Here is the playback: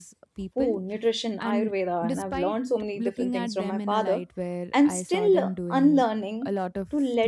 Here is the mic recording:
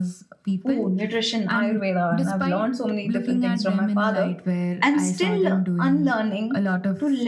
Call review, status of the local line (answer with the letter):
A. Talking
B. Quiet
B